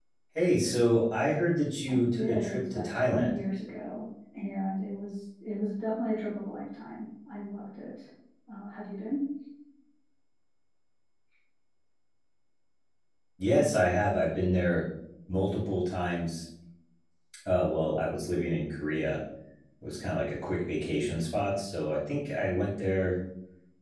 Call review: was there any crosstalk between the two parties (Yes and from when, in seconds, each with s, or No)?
Yes, from 1.9 s